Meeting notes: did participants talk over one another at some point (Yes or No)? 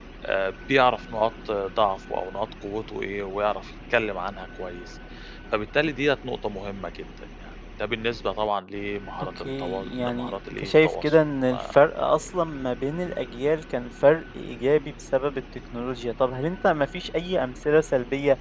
Yes